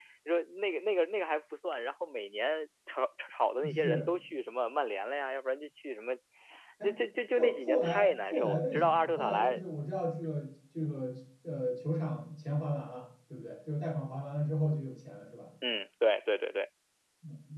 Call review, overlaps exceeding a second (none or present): present